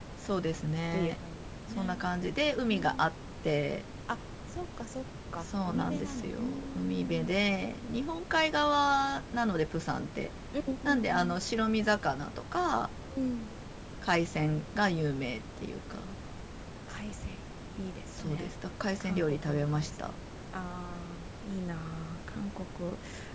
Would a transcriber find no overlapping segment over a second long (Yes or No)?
No